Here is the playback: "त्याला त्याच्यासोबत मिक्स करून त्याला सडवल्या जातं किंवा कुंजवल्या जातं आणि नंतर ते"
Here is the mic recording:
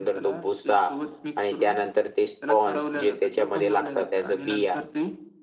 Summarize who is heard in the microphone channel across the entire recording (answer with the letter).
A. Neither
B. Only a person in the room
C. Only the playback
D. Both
D